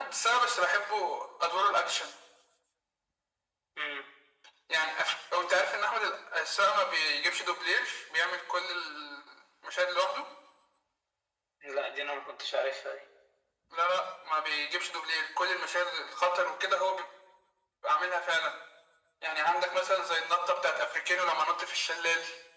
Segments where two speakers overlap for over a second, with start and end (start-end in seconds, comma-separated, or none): none